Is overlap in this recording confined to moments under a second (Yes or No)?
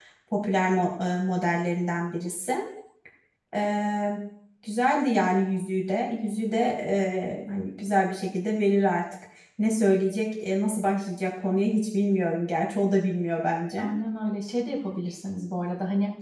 Yes